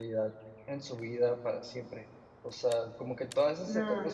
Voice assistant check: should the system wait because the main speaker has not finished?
Yes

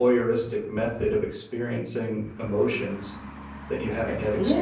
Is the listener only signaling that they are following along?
No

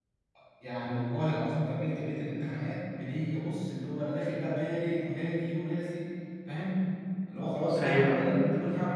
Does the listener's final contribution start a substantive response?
No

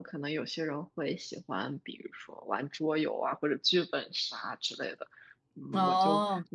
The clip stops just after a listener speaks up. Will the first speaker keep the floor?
Yes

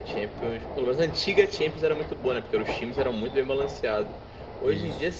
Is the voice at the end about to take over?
No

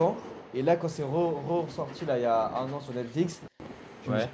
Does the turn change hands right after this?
No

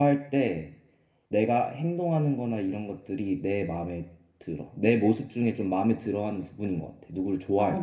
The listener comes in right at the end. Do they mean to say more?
Yes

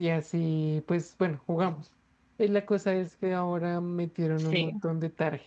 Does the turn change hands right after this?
No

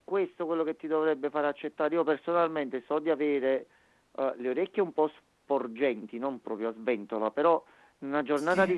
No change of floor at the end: Yes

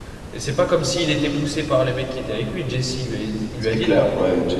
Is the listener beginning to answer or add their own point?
Yes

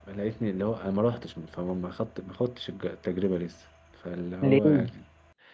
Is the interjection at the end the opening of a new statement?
No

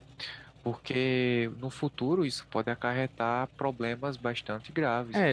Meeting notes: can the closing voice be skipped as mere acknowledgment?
No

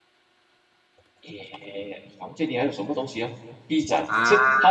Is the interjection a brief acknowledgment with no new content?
Yes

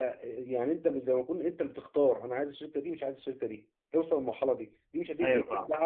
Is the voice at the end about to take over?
No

